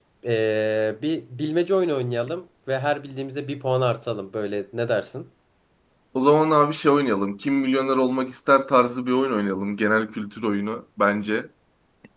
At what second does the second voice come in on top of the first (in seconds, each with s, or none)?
none